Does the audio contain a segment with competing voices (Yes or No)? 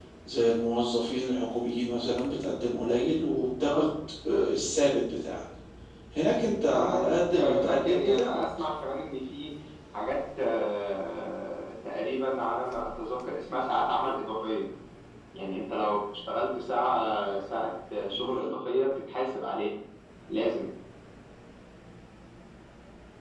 Yes